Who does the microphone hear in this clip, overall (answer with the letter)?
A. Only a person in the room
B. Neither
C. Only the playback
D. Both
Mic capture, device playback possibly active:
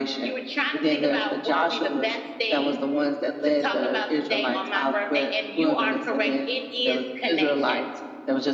C